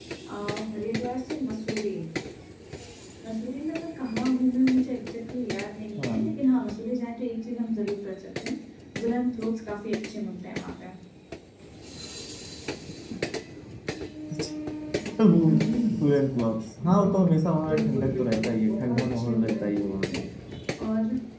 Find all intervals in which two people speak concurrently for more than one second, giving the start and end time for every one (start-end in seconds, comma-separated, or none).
17.7-20.2